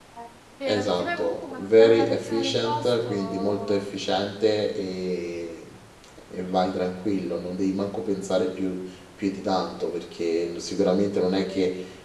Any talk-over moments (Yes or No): Yes